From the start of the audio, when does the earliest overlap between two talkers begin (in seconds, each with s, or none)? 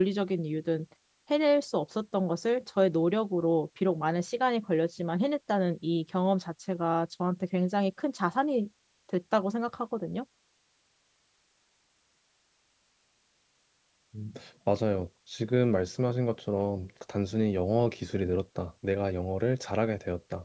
none